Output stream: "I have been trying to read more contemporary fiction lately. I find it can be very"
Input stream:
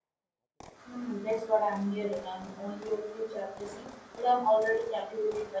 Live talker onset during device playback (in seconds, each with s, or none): 0.8 s